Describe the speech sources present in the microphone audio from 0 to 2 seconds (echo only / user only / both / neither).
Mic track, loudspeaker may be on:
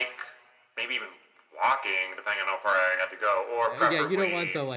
echo only